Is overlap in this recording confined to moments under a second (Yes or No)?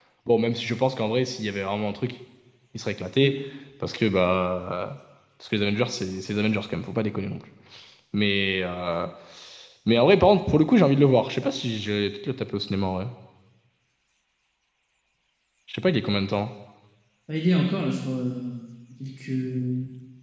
Yes